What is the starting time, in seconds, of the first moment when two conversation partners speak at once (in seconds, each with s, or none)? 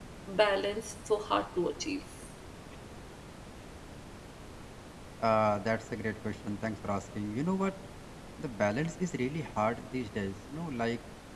none